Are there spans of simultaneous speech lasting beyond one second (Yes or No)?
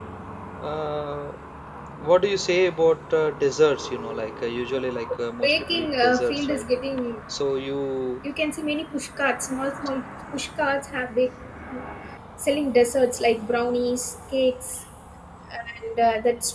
Yes